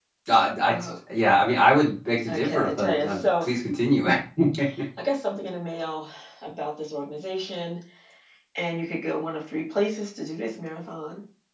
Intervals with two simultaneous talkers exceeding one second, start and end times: 2.3-3.5

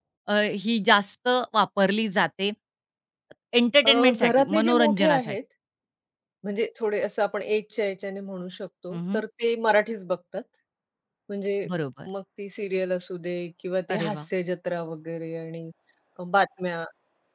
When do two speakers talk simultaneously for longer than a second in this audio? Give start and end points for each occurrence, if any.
3.8-5.4

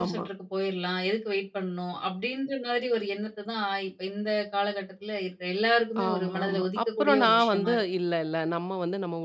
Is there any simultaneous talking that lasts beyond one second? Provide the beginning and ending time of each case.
6.1-7.8

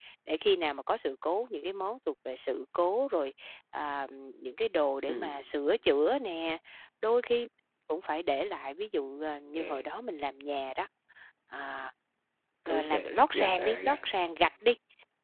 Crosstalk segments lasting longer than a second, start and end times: 12.7-14.0

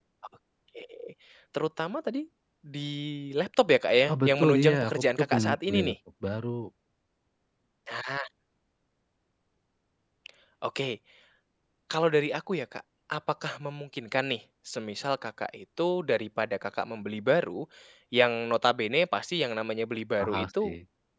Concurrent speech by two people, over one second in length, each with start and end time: 4.1-6.0

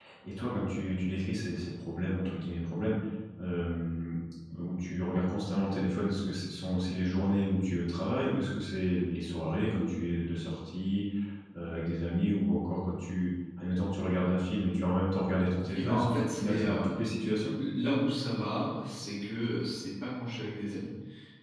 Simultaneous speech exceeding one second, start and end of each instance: 15.7-17.1

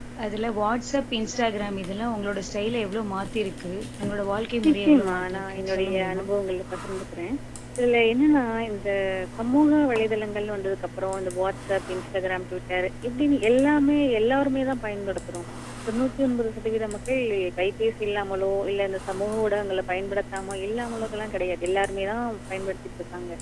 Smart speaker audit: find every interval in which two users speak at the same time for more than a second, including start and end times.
4.7-6.2

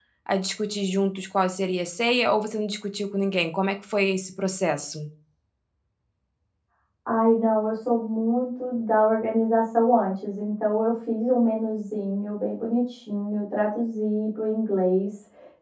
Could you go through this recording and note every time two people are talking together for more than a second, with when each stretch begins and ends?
none

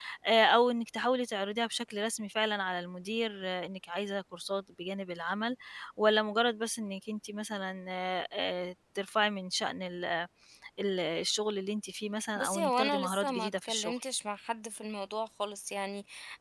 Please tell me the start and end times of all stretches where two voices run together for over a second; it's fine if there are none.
12.4-14.0

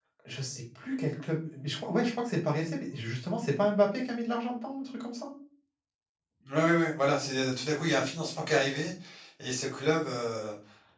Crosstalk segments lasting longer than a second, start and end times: none

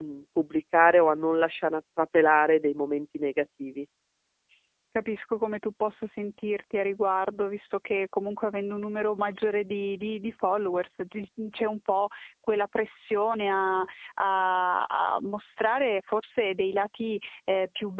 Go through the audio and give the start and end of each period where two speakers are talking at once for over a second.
none

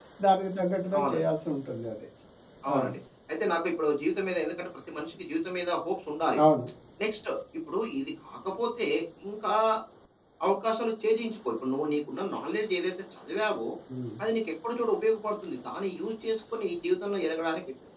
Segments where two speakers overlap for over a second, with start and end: none

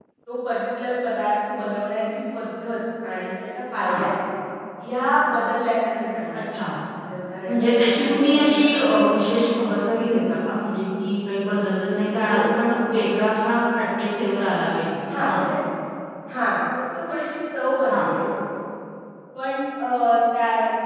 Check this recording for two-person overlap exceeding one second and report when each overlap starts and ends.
7.5-9.3

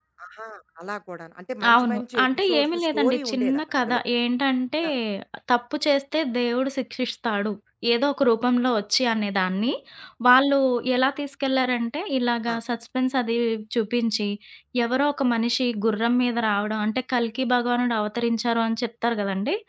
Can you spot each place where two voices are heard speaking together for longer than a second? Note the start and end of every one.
1.7-4.0

